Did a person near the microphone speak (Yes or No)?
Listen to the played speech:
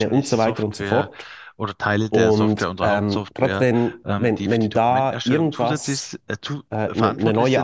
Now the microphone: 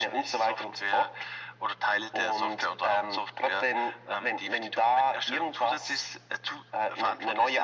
No